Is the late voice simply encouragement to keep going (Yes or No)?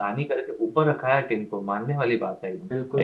No